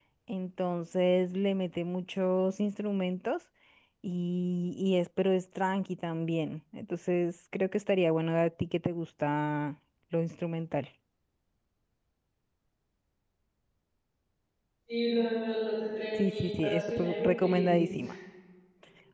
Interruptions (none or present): present